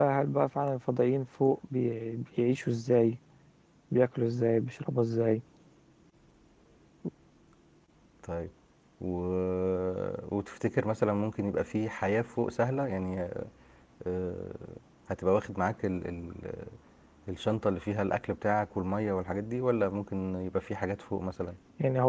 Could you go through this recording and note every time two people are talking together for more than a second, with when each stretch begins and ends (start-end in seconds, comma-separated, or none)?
none